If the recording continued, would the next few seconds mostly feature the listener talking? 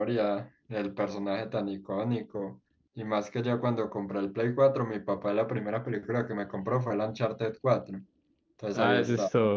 Yes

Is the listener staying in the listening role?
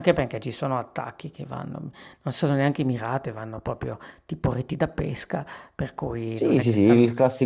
No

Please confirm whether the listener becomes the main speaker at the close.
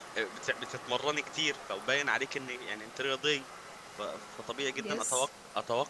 No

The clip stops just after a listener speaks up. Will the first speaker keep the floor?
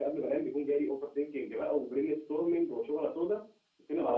No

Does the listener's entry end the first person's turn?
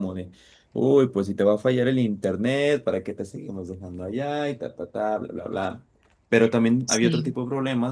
No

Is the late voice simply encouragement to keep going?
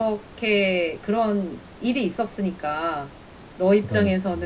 Yes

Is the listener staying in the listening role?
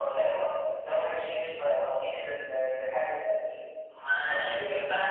No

